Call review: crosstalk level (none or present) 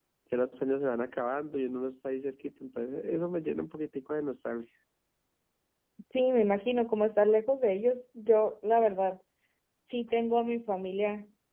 none